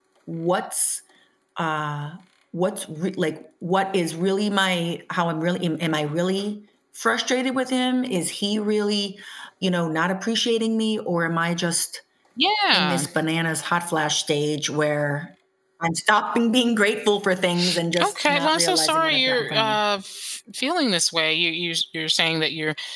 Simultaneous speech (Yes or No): Yes